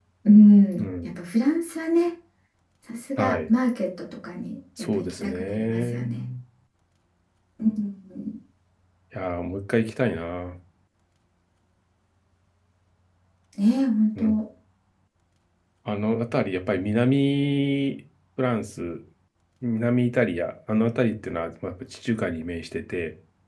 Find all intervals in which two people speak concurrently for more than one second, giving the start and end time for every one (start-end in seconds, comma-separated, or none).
4.9-6.2